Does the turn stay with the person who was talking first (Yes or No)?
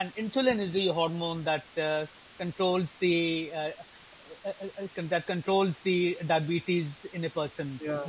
No